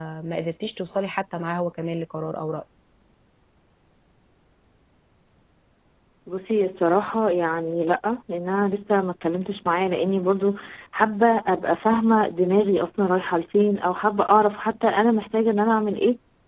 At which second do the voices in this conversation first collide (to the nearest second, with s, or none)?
none